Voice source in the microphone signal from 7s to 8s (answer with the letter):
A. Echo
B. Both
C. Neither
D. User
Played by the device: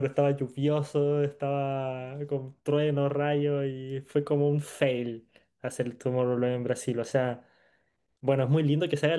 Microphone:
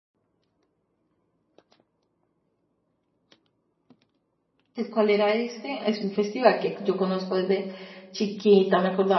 D